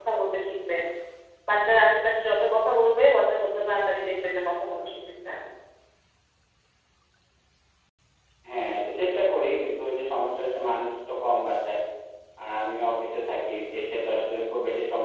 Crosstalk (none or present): none